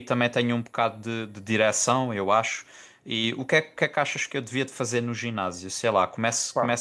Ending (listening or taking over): listening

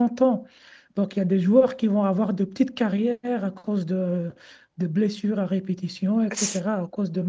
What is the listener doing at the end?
listening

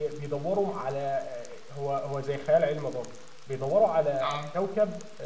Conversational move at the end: listening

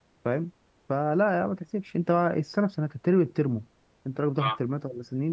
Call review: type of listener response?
listening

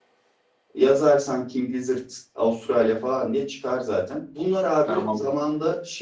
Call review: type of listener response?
listening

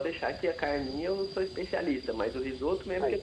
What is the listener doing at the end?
listening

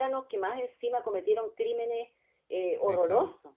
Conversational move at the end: taking over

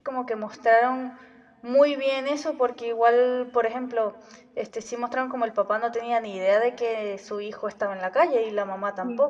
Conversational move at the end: taking over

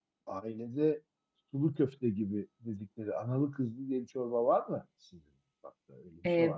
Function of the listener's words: taking over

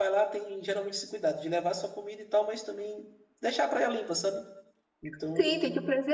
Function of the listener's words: taking over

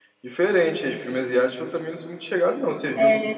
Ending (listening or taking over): listening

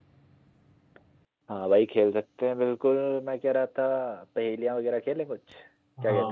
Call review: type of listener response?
taking over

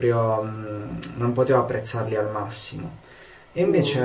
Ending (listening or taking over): listening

